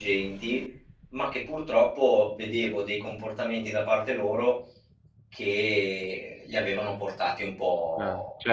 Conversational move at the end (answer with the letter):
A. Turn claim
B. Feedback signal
A